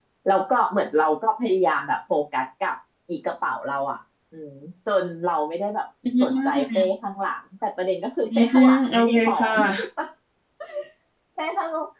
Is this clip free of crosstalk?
No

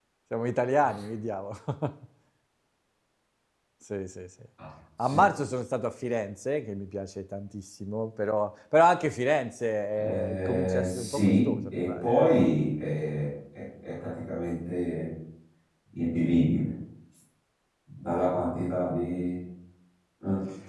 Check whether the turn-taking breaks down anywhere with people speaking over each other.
Yes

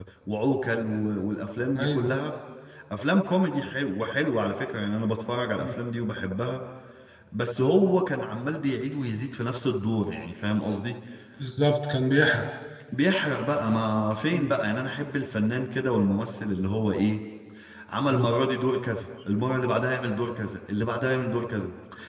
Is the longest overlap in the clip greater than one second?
No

